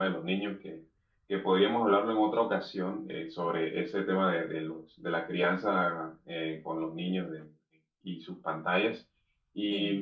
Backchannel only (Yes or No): Yes